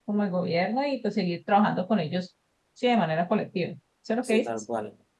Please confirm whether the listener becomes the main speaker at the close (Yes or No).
Yes